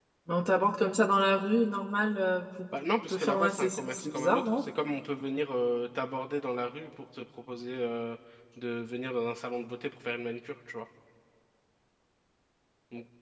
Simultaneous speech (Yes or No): Yes